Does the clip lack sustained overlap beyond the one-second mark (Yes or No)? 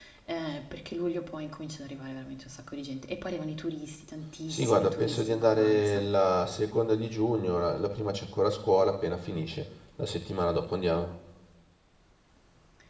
No